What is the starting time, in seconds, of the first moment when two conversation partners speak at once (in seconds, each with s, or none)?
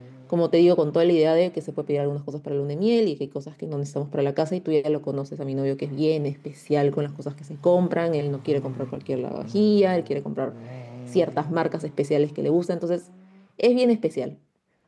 none